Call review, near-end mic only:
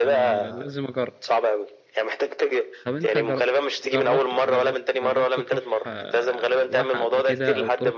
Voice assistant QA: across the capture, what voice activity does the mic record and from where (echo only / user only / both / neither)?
both